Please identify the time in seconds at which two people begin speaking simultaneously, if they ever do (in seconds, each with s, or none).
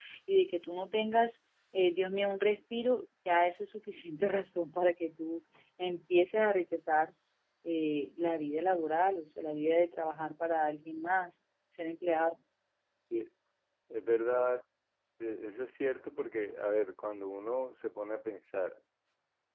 none